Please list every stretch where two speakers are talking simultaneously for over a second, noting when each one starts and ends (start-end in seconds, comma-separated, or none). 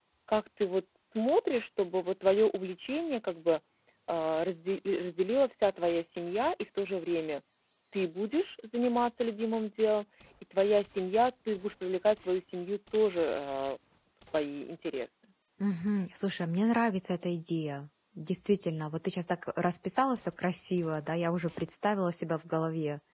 none